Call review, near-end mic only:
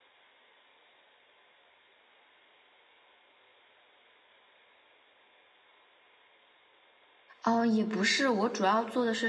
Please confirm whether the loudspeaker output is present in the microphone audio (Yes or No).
No